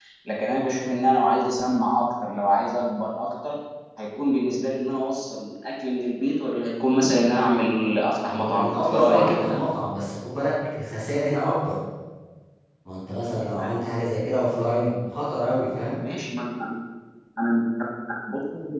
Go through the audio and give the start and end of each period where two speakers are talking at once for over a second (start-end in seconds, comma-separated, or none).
8.3-9.6